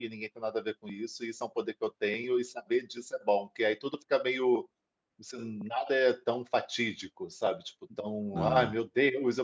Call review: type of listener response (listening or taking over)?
listening